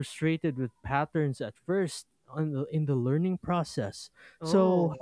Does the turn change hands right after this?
No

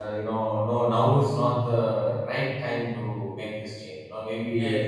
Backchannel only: Yes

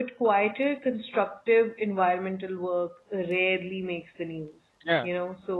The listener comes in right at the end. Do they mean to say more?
No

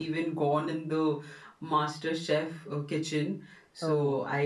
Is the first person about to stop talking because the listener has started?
No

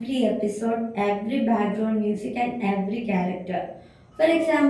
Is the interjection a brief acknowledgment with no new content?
Yes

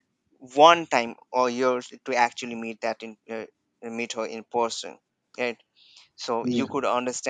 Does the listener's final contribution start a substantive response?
No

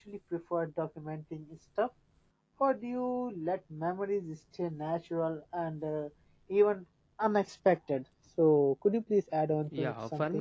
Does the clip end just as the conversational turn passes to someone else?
Yes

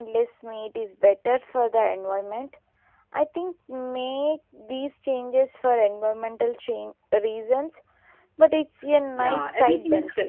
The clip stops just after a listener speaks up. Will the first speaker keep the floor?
No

